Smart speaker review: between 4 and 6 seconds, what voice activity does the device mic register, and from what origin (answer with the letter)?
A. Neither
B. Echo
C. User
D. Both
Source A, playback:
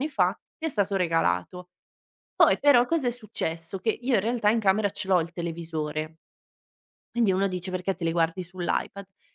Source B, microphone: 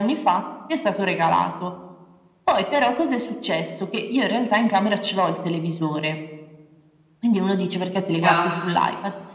B